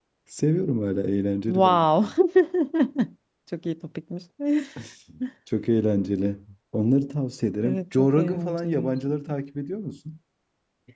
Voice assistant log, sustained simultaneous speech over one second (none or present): present